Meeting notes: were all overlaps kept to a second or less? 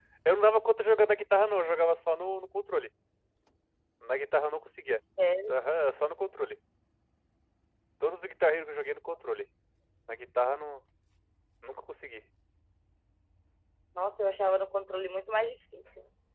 Yes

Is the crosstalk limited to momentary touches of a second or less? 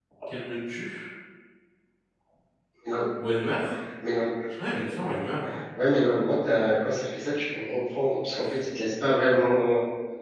Yes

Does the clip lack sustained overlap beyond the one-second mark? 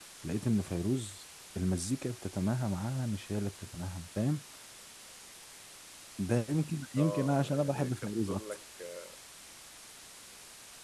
No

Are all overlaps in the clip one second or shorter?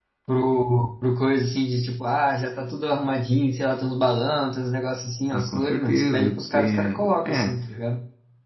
No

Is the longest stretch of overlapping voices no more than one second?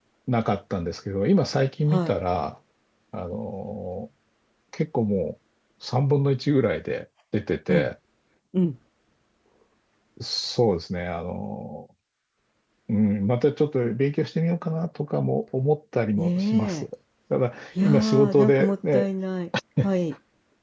No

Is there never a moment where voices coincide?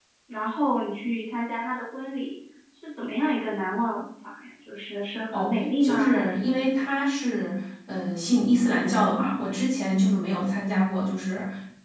No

